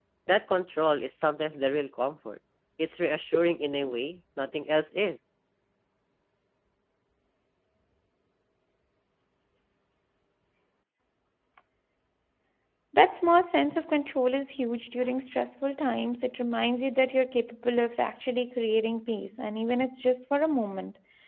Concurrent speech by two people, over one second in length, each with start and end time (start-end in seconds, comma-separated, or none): none